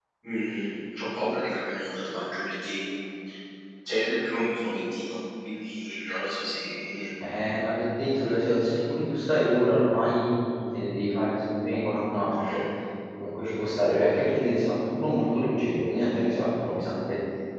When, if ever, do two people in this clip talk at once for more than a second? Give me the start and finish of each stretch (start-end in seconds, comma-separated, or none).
none